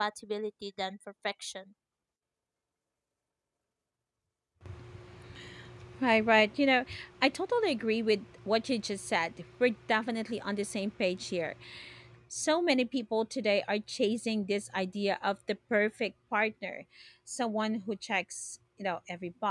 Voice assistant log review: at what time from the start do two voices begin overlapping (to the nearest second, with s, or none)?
none